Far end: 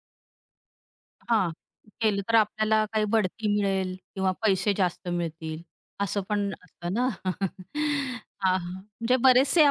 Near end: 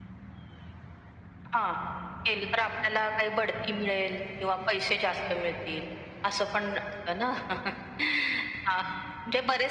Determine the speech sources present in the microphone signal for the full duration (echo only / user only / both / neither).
echo only